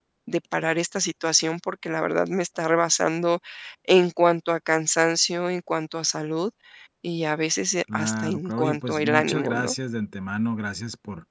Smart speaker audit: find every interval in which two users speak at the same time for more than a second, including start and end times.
7.9-9.7

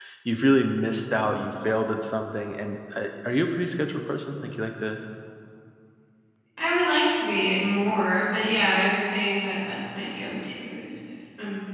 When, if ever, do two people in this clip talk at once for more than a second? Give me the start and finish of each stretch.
none

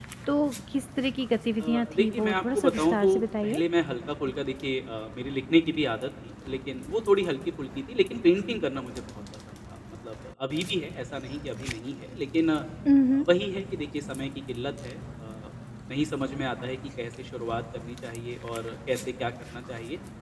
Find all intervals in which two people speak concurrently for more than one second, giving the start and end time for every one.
1.6-3.6

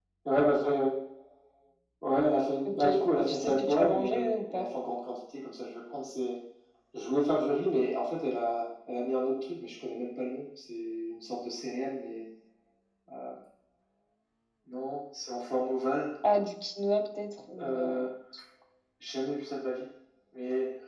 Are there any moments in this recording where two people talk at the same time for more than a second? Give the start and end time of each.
2.6-4.6

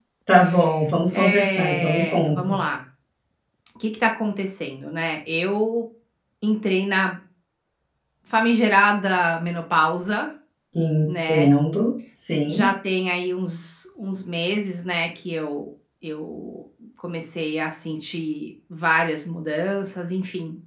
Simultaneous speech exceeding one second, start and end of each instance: 1.2-2.5

